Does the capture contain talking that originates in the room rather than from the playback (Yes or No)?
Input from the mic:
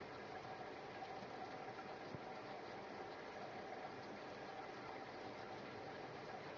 No